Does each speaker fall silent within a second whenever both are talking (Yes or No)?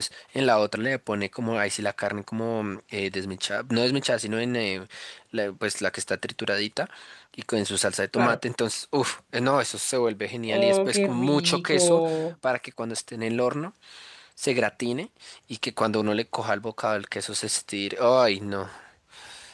No